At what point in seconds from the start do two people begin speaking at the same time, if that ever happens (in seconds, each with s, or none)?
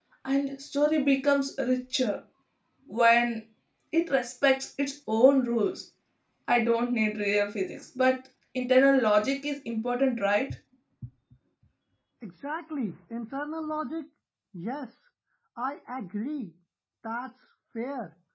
none